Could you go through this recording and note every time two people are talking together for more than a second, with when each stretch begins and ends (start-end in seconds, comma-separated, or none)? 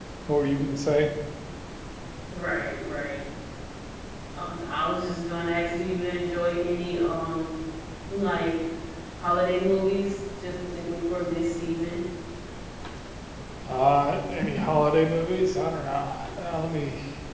none